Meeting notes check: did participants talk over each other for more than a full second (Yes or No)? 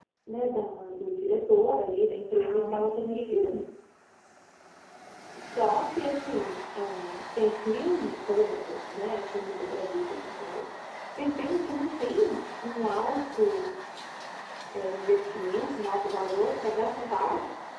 Yes